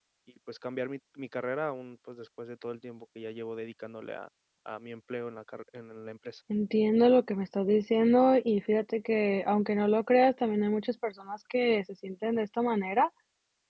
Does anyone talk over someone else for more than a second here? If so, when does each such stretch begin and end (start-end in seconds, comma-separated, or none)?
none